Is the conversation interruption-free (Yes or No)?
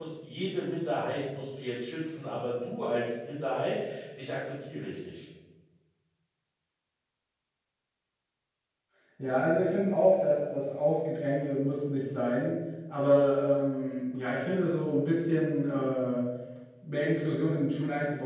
Yes